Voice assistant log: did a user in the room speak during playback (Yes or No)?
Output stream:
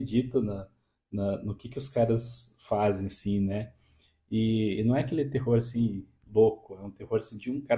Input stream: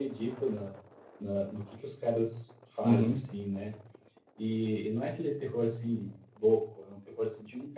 Yes